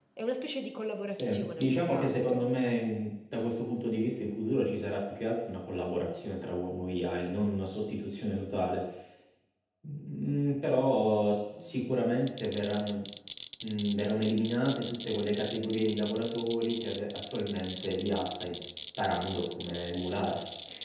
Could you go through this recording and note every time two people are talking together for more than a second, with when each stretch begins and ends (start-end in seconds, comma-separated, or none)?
1.1-2.4